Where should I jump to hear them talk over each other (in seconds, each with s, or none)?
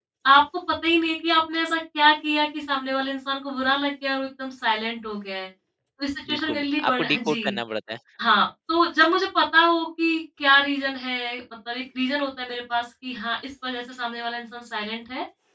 6.3 s